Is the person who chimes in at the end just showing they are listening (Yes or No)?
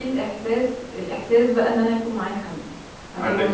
Yes